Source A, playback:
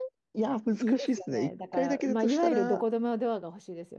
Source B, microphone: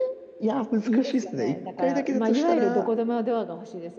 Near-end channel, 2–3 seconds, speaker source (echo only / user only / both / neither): echo only